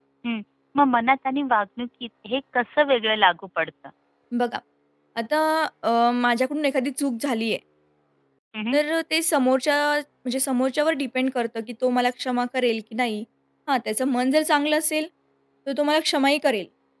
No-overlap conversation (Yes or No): Yes